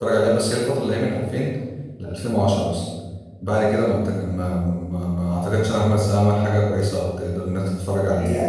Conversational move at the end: taking over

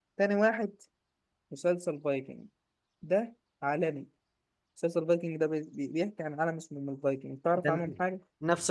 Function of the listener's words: taking over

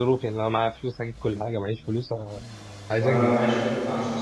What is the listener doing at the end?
taking over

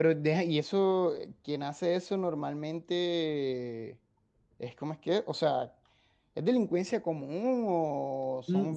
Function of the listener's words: taking over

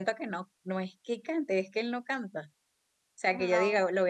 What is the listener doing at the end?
listening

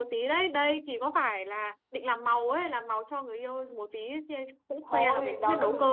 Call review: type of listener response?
taking over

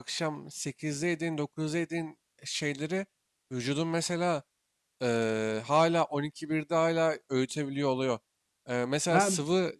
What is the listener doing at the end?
listening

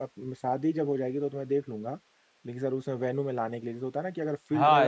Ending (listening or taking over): taking over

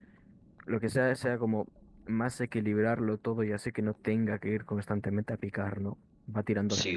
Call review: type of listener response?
taking over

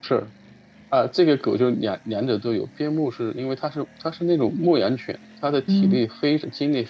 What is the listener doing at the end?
listening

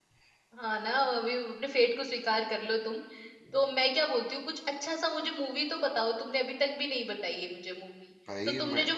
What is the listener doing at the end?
listening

